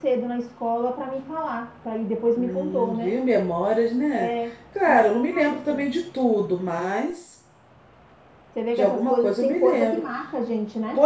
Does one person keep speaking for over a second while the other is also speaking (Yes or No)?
Yes